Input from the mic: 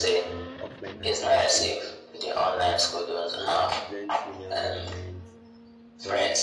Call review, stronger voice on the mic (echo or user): echo